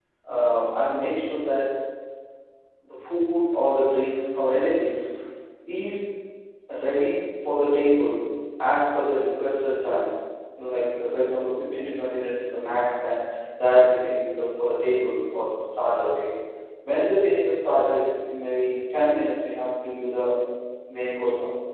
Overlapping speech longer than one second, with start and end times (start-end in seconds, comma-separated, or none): none